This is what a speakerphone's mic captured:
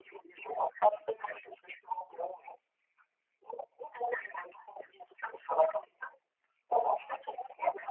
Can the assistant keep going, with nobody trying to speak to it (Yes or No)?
Yes